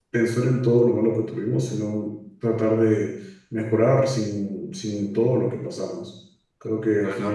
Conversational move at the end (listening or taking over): listening